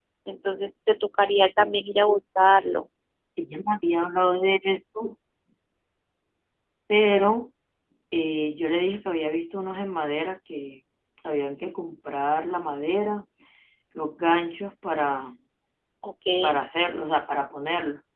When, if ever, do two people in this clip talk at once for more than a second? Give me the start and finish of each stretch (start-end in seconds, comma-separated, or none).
none